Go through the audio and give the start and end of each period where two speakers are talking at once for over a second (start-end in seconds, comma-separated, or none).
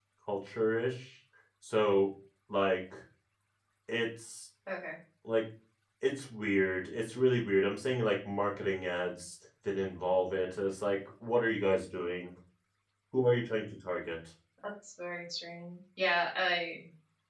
none